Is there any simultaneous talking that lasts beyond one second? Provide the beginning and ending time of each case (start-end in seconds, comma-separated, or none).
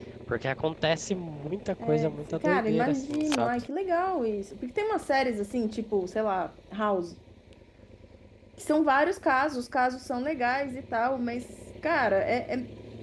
1.8-3.5